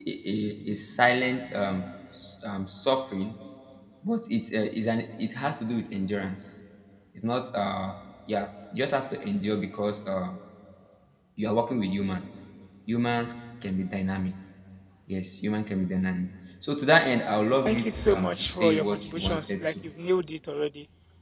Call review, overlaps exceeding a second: present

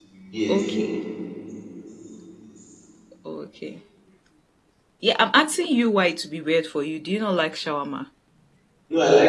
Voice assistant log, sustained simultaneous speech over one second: none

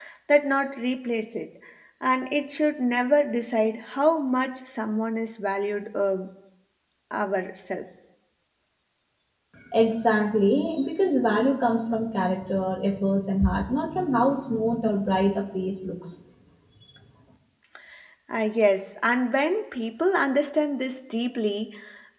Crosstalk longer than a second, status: none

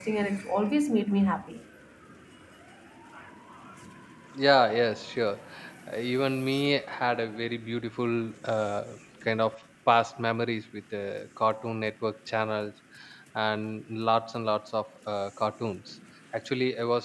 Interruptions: none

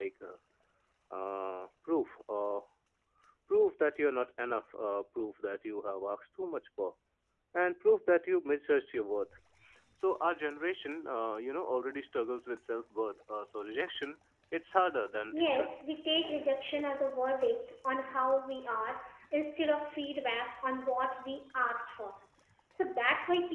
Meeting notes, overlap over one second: none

